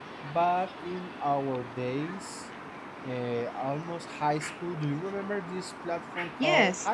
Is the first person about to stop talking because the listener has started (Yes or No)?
Yes